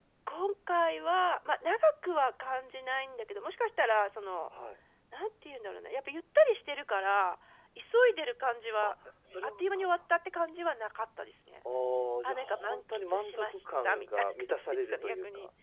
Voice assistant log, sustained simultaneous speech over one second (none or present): present